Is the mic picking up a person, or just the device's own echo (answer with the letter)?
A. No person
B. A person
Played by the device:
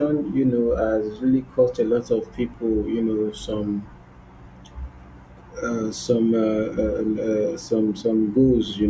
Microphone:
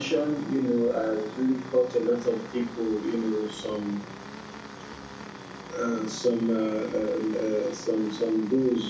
A